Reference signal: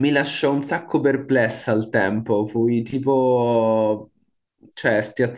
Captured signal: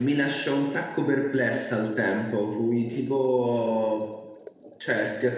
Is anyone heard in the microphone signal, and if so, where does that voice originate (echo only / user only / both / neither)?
echo only